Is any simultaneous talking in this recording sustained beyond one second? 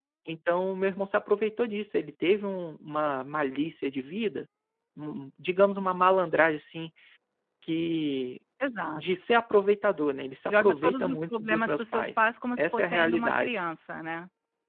Yes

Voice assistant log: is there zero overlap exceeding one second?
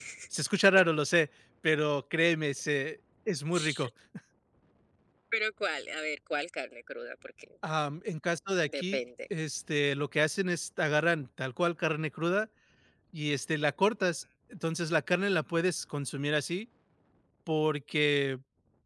Yes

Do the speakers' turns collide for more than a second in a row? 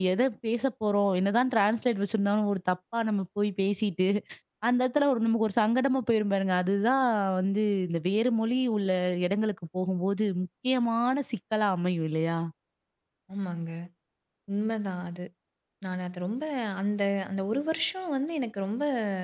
No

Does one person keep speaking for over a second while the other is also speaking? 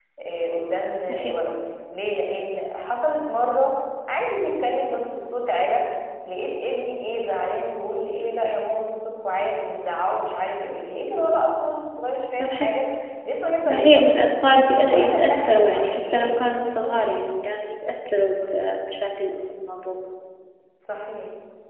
Yes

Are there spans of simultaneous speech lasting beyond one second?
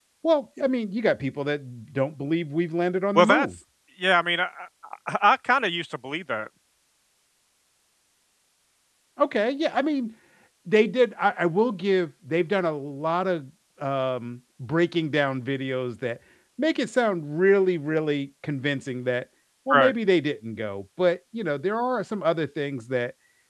No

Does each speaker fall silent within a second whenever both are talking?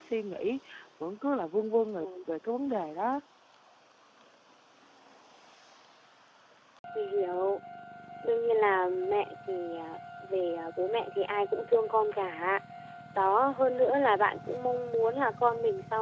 Yes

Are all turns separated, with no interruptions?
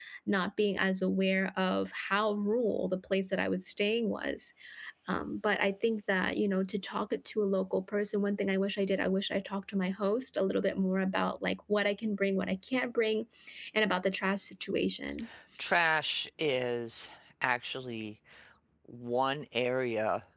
Yes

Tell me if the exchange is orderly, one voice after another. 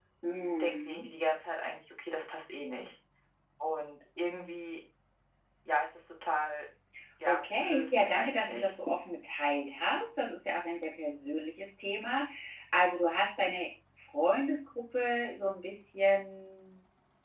No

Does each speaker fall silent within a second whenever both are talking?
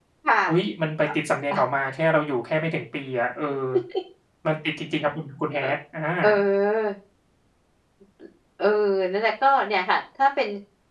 Yes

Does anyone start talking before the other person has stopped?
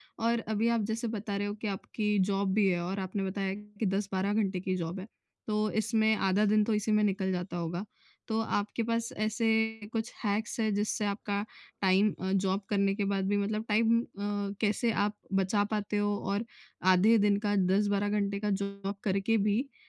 No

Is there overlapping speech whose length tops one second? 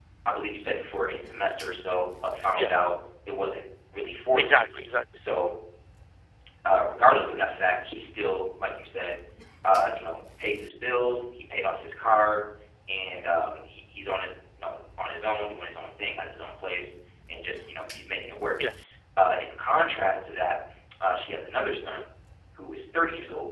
No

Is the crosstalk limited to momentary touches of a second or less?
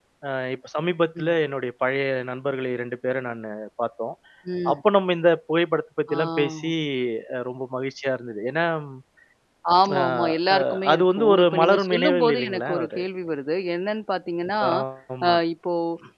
No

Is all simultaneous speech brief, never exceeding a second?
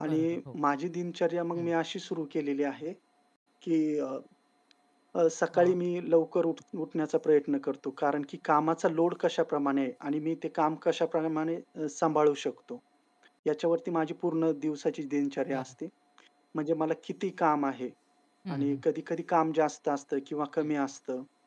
Yes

